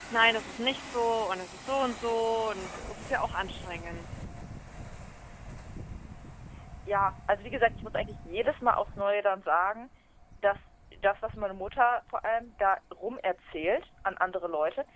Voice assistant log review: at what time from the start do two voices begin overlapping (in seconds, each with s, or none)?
none